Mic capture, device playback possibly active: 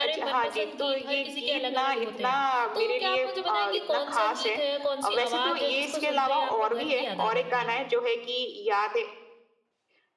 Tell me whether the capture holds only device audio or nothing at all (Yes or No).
No